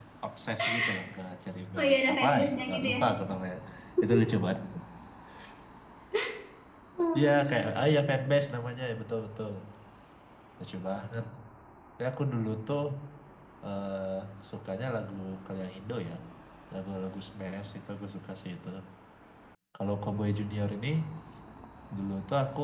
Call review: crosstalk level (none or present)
present